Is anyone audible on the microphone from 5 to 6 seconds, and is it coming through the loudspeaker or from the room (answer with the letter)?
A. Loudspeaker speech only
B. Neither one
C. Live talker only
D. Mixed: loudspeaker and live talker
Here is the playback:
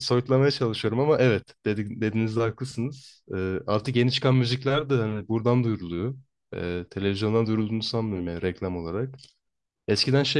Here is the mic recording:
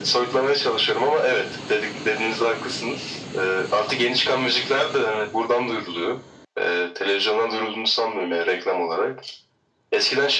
A